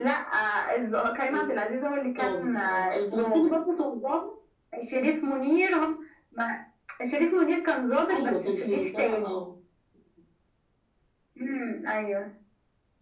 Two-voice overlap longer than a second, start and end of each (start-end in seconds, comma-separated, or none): 2.2-3.5, 8.1-9.4